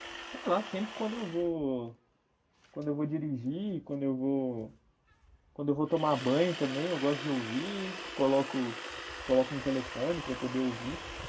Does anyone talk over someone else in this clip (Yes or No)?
No